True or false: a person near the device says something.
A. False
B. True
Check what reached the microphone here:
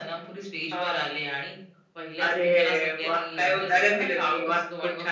A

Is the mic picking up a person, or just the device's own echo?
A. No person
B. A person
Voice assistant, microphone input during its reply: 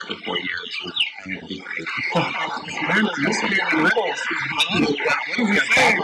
A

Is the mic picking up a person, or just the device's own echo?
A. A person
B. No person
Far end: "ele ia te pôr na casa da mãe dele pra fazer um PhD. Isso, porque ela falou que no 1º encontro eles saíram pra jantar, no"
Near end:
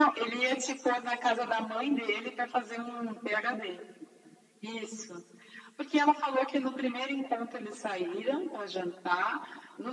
B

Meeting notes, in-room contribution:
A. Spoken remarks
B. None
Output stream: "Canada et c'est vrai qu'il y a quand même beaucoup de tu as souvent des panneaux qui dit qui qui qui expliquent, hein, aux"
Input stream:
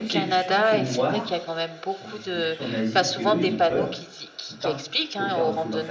A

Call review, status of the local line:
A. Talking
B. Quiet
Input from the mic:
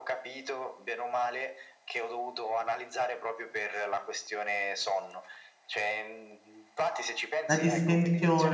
A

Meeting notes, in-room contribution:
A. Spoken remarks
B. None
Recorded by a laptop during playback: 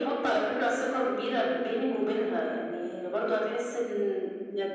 B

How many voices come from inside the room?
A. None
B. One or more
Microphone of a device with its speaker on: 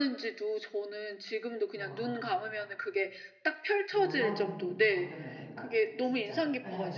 B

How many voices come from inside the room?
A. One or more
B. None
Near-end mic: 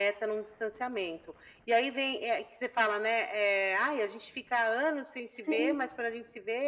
A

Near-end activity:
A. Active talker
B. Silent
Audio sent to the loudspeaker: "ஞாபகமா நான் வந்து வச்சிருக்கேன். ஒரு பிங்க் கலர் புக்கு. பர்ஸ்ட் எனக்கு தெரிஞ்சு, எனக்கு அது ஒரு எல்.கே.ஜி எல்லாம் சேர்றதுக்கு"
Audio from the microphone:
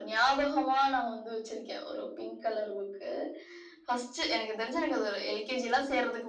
B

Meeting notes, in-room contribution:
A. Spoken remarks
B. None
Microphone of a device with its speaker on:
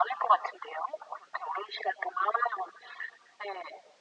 B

